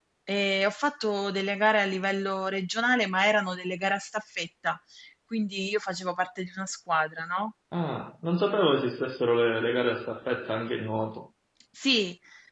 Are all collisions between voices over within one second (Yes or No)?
Yes